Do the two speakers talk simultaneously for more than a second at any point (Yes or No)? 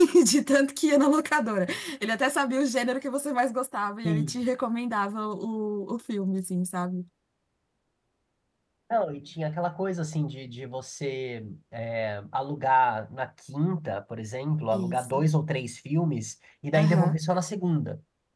No